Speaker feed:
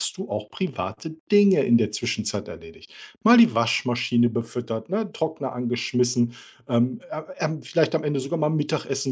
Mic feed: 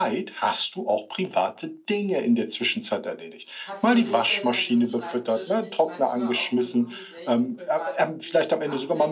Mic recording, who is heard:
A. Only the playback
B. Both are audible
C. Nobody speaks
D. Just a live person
B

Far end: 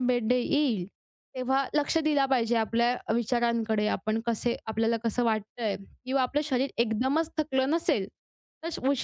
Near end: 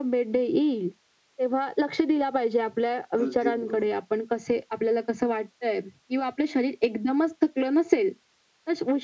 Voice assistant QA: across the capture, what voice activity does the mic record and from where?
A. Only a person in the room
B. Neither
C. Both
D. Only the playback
C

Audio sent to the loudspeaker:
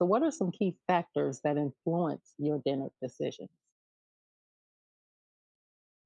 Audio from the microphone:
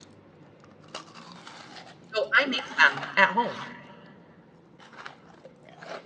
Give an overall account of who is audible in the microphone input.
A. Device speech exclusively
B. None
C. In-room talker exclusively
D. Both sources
C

